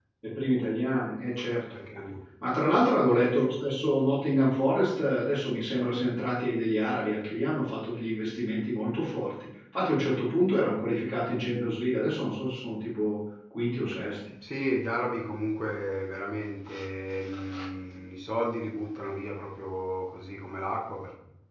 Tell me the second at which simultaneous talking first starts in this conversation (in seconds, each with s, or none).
none